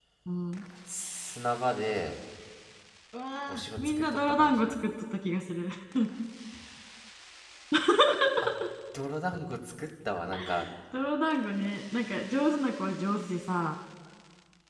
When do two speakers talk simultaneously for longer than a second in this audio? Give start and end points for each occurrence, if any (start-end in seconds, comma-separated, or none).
3.5-4.8